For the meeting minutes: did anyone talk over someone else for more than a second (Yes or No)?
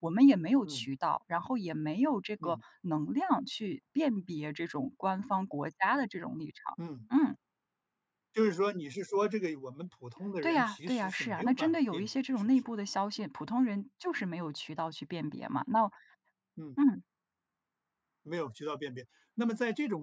Yes